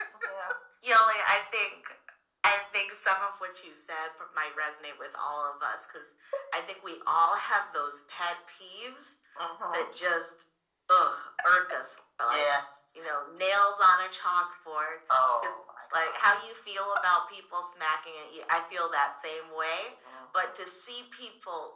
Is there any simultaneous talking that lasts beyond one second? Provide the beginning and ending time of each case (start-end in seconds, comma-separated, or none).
none